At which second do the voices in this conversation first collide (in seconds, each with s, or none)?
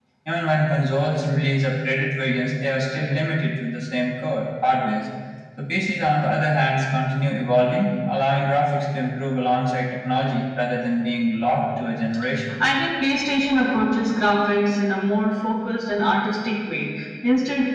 none